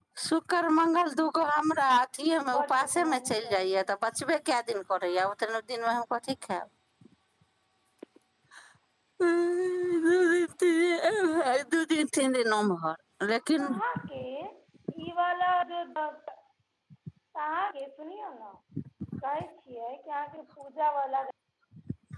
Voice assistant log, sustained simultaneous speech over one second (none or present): present